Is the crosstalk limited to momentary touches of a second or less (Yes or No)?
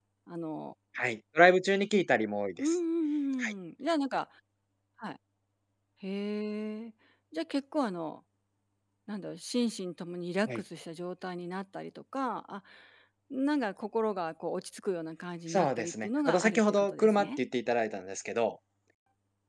No